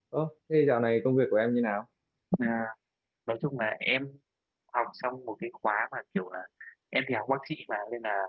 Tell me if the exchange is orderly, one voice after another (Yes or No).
Yes